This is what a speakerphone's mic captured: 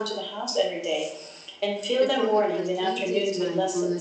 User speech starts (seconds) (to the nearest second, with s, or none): 2 s